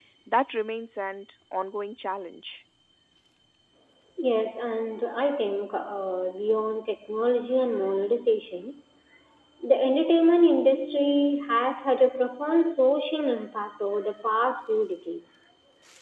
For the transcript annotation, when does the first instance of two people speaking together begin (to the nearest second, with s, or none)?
none